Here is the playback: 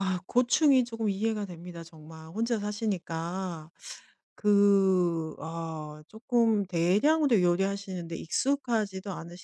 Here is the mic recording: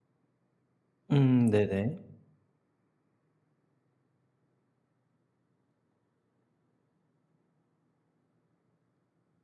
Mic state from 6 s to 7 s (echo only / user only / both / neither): neither